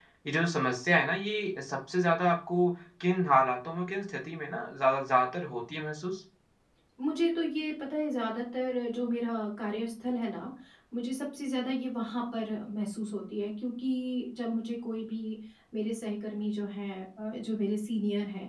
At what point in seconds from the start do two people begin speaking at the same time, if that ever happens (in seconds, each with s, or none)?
none